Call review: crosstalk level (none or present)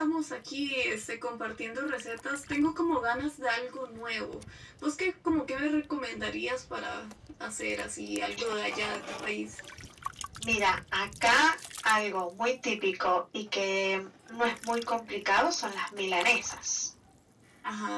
none